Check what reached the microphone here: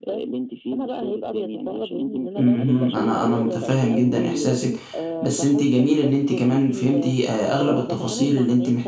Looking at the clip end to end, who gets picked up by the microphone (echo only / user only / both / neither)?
both